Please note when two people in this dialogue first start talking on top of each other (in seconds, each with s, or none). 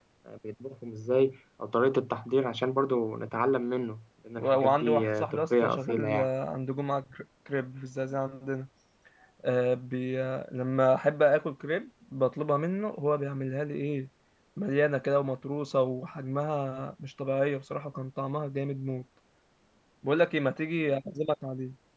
4.4 s